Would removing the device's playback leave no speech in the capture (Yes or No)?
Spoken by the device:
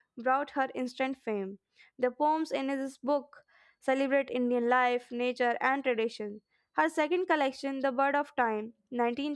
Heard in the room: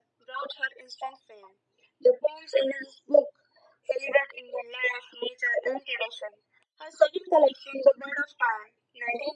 Yes